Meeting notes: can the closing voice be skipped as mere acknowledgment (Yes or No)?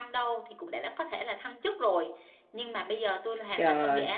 Yes